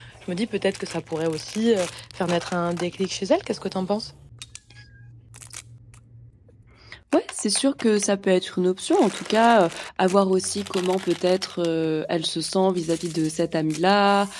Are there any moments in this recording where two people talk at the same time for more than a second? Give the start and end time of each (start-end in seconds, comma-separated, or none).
none